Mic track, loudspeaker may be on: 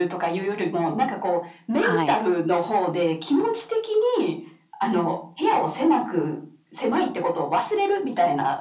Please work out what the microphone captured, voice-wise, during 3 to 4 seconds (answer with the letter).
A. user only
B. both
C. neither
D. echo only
D